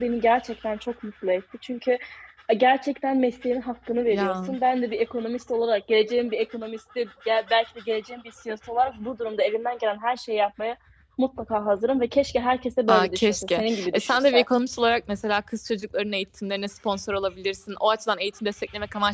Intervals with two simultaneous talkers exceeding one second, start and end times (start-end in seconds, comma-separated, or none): 12.9-14.4